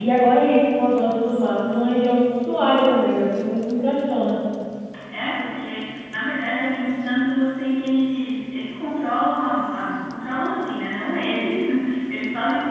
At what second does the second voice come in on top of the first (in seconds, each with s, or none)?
none